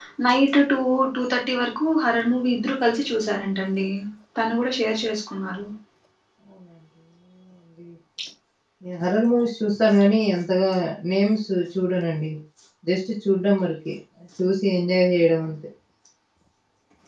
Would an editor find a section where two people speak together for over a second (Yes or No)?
No